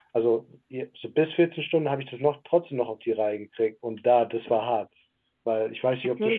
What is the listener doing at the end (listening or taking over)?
taking over